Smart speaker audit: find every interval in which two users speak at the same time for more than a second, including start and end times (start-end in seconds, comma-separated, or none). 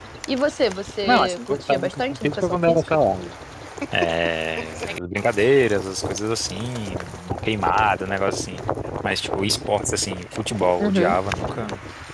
1.0-3.0